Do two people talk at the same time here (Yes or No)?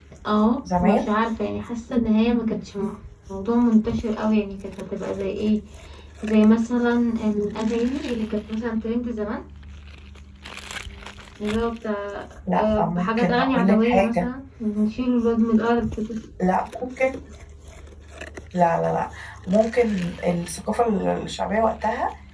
Yes